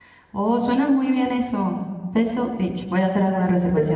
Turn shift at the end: Yes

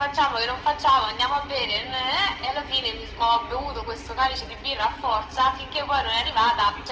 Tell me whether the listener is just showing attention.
Yes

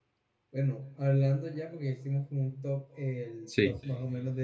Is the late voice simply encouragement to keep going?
Yes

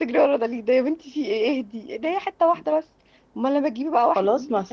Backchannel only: No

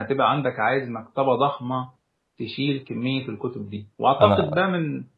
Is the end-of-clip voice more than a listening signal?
No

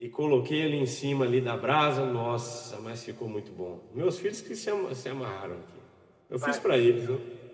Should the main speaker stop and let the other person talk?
Yes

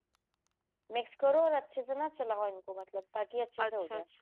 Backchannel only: No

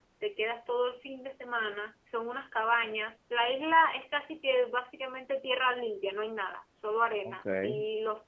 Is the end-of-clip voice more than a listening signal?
No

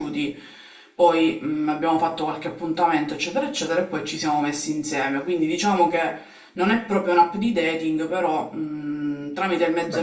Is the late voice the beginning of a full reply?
Yes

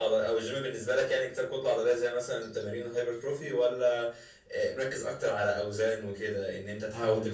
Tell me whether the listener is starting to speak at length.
No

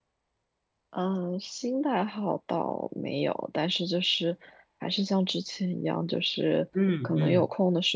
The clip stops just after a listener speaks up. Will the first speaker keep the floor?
Yes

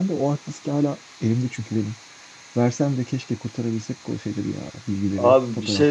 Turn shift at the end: Yes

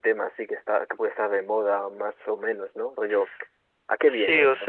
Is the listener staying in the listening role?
No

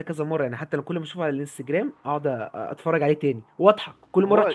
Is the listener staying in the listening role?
No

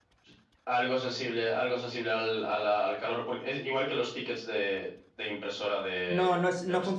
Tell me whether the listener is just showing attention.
No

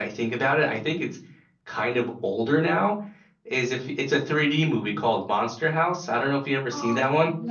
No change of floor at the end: No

